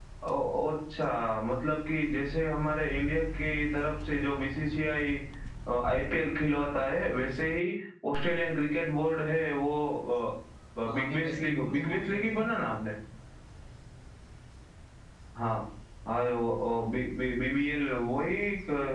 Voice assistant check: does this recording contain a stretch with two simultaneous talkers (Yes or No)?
Yes